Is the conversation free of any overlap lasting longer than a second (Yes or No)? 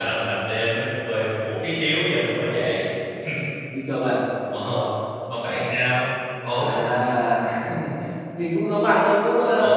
Yes